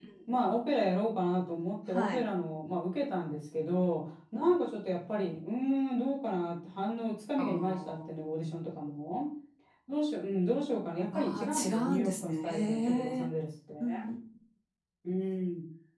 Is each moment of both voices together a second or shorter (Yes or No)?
No